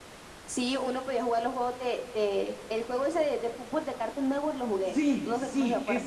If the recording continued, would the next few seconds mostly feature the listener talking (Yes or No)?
Yes